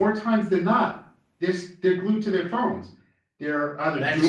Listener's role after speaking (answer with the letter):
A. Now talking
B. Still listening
B